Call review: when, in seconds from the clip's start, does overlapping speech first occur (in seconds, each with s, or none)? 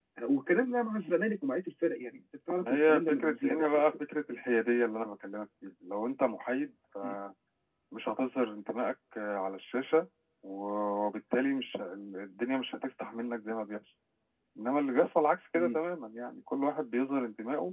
2.6 s